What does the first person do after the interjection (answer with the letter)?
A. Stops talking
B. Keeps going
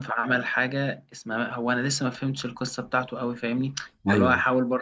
B